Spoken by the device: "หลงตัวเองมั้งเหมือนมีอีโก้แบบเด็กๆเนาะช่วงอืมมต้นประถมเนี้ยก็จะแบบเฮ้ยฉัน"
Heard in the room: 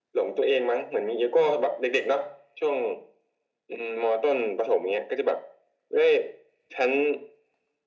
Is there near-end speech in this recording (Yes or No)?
No